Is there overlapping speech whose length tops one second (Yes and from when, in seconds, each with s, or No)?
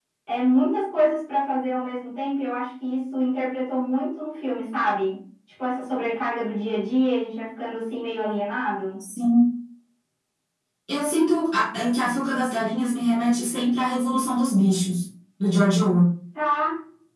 No